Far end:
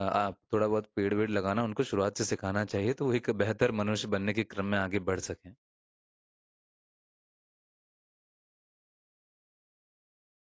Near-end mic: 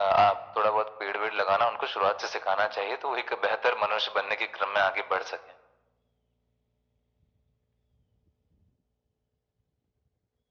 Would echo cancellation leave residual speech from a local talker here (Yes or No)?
No